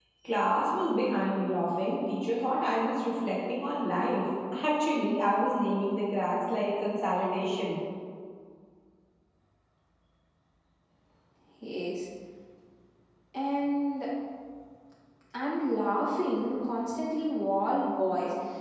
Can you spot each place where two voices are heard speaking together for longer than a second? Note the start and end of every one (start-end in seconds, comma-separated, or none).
none